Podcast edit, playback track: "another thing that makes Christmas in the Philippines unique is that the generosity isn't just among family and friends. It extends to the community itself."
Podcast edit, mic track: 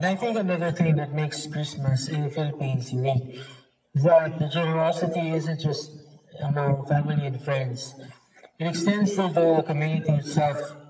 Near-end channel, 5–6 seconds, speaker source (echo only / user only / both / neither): echo only